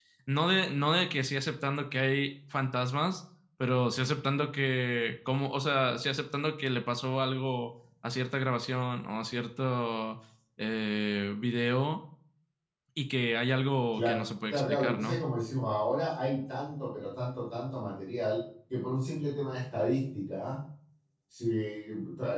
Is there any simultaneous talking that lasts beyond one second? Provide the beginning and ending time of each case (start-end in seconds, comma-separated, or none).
13.9-15.2